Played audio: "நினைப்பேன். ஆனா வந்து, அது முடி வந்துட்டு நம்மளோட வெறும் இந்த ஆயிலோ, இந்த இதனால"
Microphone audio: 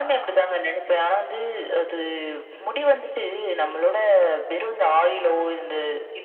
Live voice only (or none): none